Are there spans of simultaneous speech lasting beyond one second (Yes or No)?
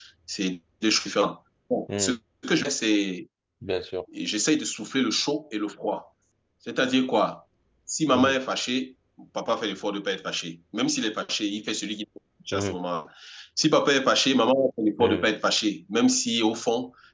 No